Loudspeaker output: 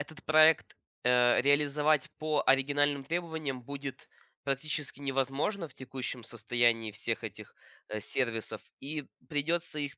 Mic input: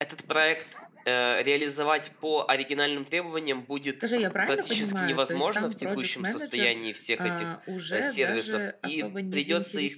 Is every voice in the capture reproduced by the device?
No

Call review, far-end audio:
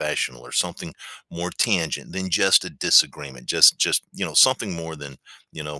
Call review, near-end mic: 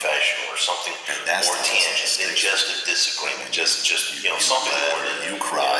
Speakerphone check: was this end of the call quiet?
No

